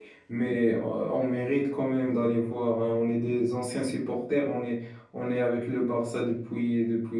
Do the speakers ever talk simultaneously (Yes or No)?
No